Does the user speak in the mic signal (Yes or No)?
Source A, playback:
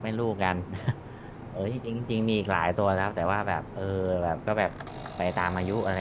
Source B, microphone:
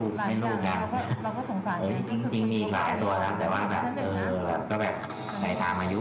Yes